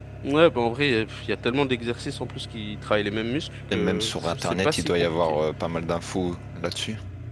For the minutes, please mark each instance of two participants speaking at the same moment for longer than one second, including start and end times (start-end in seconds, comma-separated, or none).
3.7-5.4